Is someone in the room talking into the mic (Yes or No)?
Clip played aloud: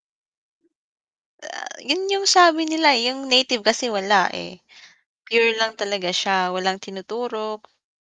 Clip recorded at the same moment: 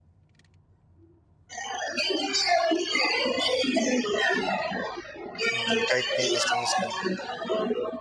Yes